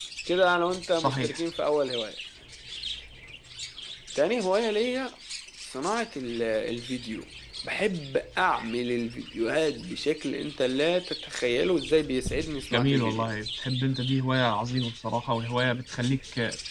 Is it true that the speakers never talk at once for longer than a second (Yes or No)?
Yes